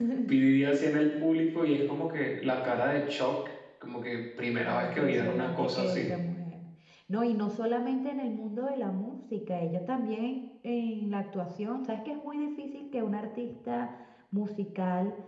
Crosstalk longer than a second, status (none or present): present